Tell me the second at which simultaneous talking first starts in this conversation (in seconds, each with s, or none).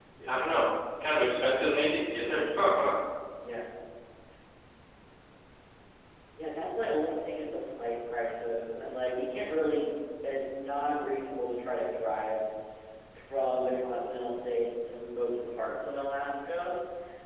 none